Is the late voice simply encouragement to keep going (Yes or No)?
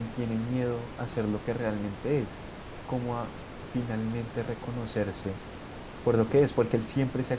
Yes